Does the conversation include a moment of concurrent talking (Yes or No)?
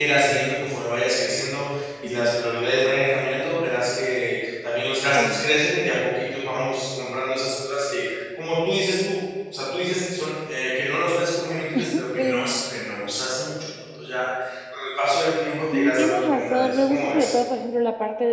Yes